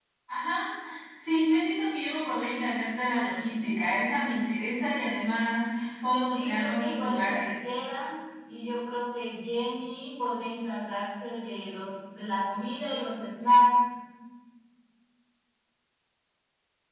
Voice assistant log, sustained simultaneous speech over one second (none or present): present